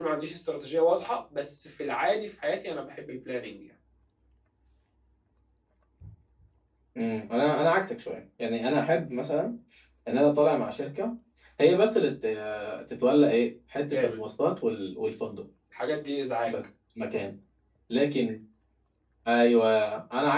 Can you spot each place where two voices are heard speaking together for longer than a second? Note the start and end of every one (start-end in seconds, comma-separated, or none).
none